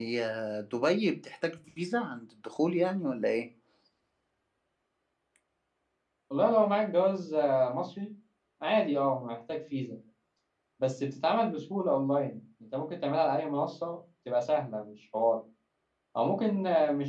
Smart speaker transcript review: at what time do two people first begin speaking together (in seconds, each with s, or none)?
none